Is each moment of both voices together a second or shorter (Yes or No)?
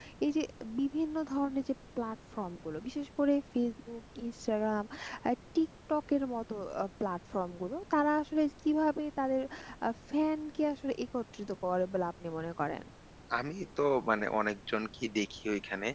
Yes